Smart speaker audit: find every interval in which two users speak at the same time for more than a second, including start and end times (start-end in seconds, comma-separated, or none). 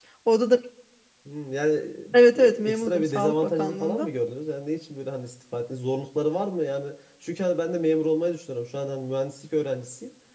2.1-4.1